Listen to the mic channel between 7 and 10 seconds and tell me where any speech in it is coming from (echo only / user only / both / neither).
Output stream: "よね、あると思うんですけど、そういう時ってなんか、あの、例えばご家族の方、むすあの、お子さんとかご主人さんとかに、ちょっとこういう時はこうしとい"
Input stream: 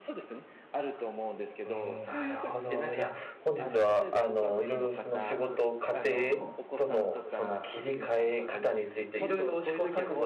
both